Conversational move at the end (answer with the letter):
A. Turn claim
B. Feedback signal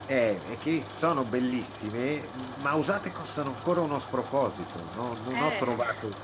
B